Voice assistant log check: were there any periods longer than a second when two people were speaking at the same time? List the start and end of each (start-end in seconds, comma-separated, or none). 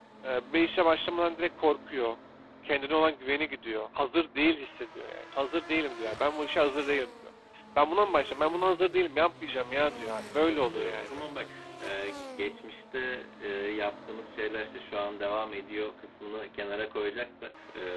9.8-11.1